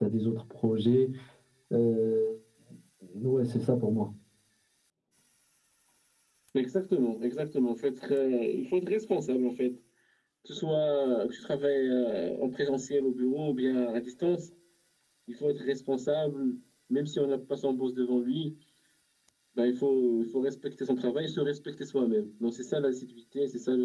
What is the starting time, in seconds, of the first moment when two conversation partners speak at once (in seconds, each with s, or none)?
none